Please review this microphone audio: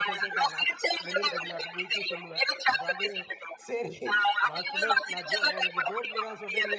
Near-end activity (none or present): present